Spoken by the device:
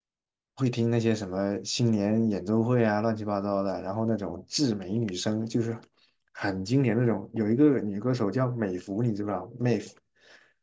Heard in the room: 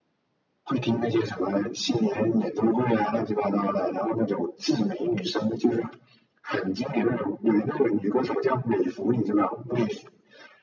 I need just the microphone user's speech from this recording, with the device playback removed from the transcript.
none

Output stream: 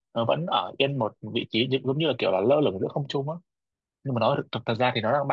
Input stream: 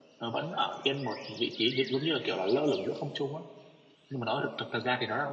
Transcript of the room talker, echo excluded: none

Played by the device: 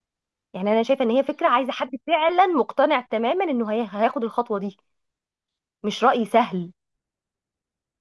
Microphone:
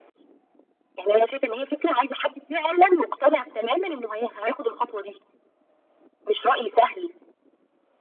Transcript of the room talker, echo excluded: none

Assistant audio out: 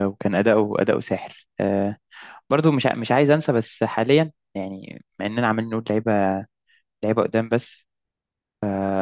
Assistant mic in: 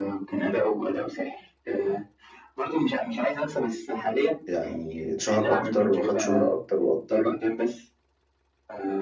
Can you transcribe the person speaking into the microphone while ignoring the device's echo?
يعني اتشهر اكتر وخد شهره اكتر واكتر

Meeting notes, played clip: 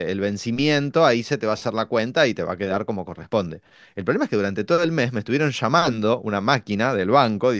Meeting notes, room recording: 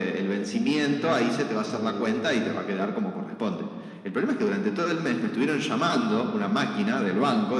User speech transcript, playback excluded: Ah, bu.

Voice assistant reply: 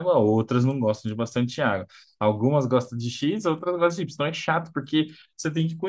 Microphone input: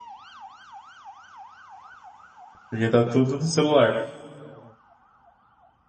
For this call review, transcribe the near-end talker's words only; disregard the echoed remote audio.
porque tá tudo no celular.

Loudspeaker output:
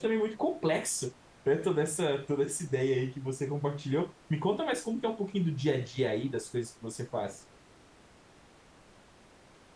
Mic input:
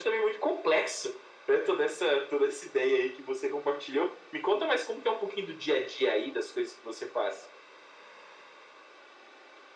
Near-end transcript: none

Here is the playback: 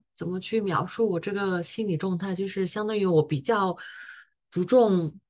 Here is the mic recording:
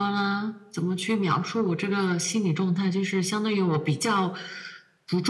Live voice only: none

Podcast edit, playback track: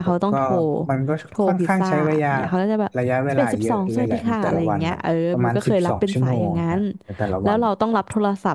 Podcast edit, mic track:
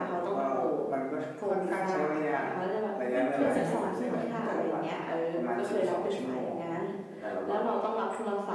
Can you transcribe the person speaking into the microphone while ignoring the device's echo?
ขึ้นอยู่แต่ละสาขา

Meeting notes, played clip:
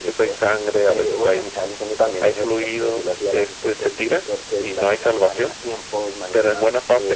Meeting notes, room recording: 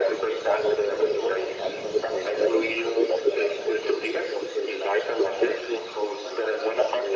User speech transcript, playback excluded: none

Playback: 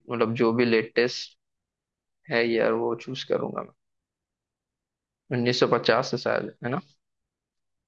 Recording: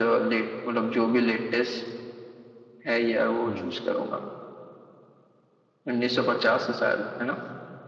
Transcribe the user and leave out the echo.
हम्म

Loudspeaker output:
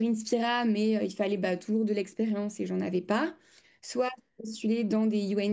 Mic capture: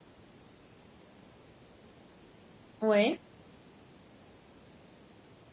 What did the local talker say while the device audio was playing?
Ouais.

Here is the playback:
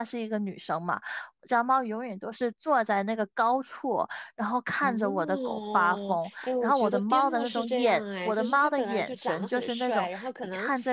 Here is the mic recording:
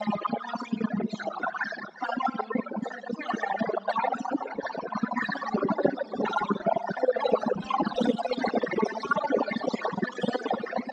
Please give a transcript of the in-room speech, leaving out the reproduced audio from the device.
none

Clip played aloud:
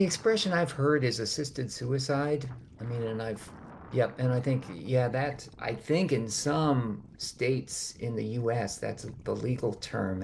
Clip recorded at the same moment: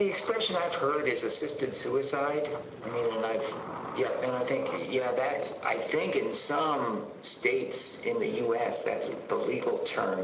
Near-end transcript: none

